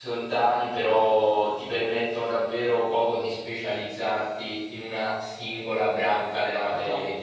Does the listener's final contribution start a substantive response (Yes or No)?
Yes